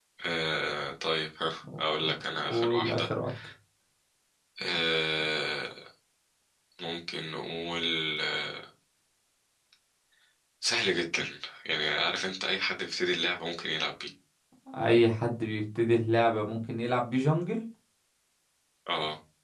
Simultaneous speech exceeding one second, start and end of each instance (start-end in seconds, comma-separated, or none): 1.8-3.0